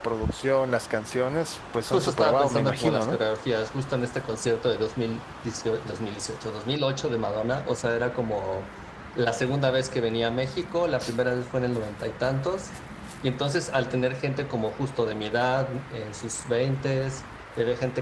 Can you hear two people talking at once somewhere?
Yes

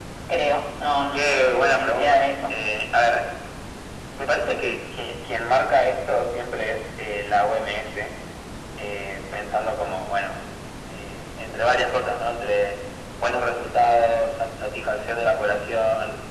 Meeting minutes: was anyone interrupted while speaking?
Yes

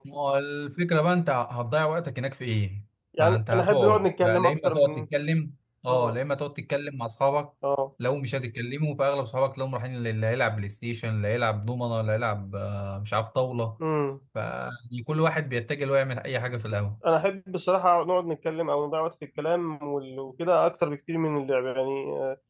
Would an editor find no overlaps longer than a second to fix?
No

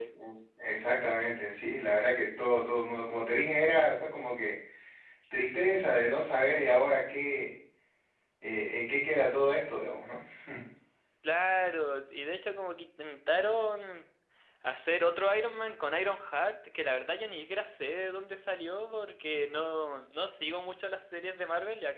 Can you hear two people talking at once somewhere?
No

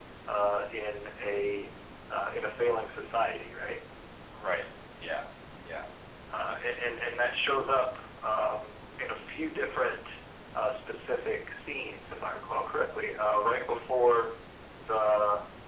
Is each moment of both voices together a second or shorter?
Yes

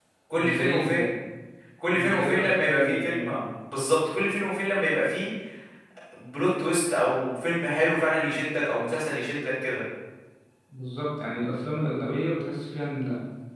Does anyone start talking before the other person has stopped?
Yes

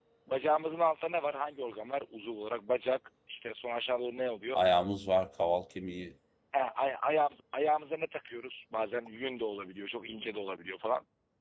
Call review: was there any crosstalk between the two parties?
No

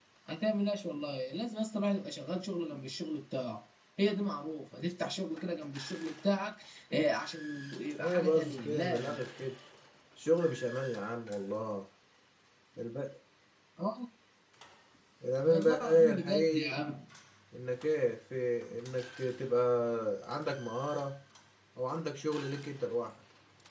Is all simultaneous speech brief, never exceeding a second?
No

